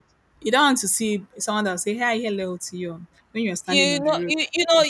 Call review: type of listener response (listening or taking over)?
taking over